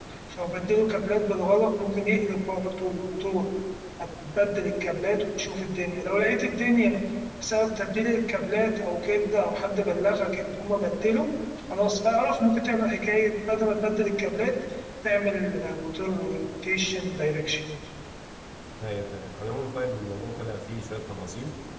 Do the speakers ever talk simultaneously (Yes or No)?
No